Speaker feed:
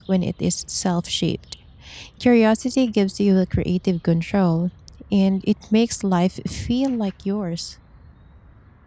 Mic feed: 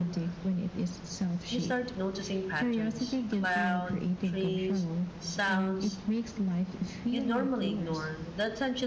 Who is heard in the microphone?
both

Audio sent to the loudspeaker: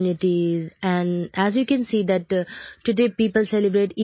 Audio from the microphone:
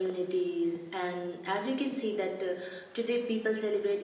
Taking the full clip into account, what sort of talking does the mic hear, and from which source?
echo only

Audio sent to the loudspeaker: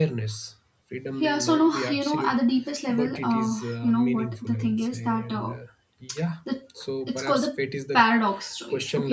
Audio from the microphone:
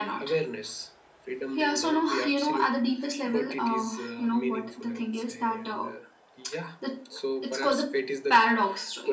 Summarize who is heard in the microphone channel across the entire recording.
echo only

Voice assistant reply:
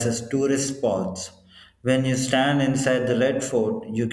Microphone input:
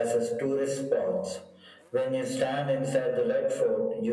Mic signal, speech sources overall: echo only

